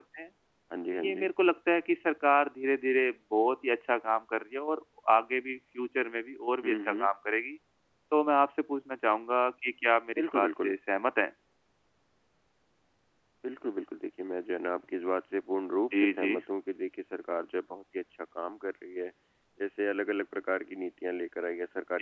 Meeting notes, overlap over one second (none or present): none